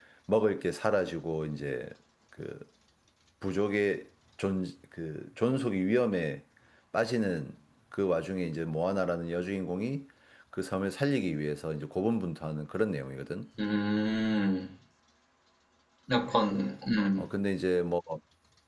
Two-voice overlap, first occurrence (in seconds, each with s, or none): none